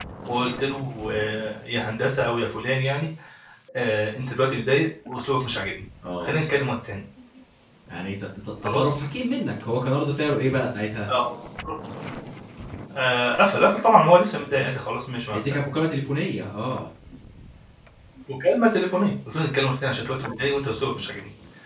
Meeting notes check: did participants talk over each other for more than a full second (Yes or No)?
No